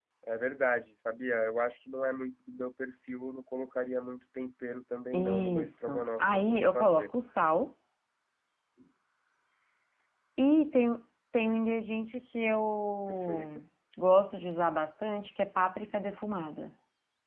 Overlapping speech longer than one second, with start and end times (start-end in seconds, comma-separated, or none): 5.1-7.1